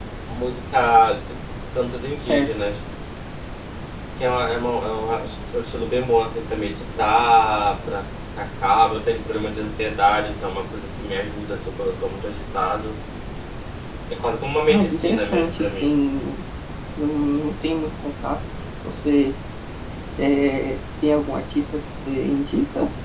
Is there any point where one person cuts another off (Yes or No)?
Yes